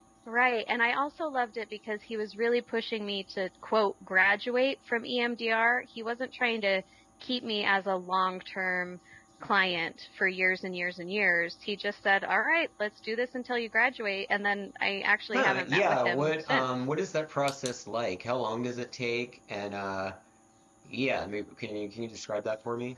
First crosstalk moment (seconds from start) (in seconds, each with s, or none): 15.3 s